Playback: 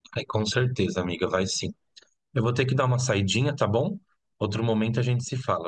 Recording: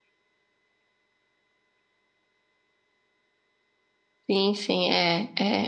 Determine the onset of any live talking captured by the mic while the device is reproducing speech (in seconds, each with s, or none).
4.3 s